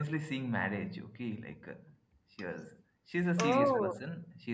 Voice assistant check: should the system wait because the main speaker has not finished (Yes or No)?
Yes